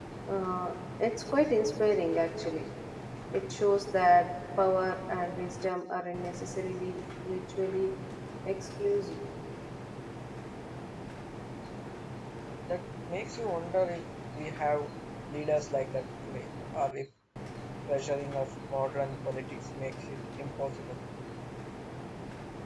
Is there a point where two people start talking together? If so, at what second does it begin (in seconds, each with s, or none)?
none